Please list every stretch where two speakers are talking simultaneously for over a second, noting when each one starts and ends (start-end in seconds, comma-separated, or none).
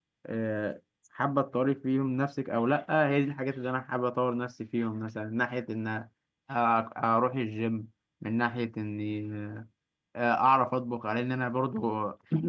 none